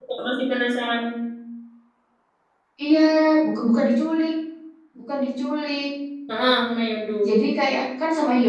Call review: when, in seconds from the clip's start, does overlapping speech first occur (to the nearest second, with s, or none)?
none